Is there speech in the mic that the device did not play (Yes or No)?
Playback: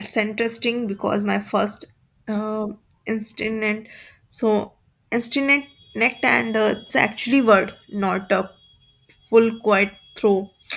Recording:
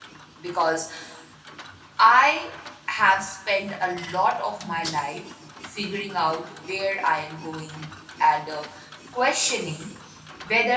Yes